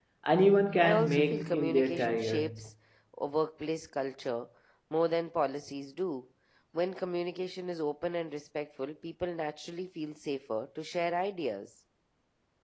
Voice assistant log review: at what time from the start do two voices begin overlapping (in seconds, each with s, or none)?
0.8 s